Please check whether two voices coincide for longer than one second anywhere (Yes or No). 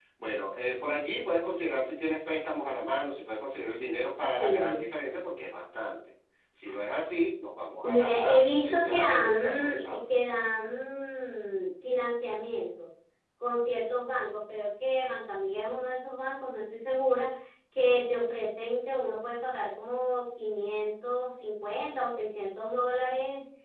Yes